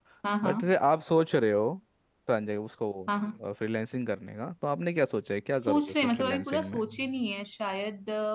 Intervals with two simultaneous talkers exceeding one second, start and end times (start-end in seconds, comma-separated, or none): 5.5-6.8